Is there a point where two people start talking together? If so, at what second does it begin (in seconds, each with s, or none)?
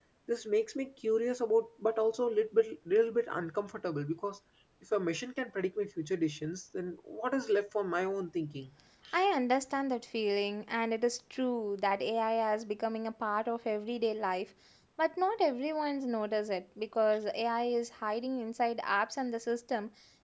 none